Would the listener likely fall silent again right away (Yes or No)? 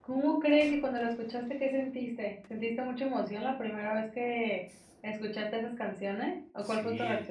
No